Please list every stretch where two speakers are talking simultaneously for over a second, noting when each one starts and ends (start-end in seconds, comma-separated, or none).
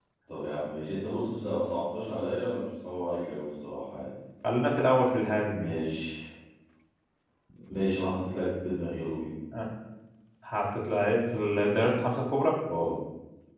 none